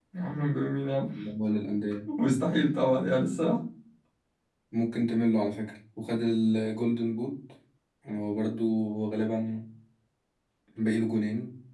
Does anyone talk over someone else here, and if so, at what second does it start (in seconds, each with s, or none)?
none